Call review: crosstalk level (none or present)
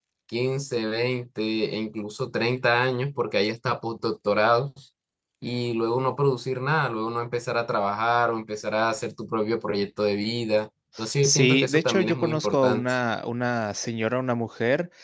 present